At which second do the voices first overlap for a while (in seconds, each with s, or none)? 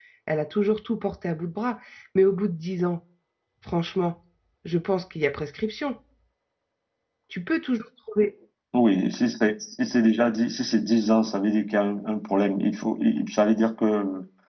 none